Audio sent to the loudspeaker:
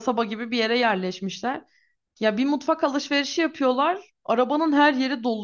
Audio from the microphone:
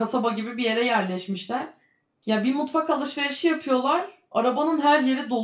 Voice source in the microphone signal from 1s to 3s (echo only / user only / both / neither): echo only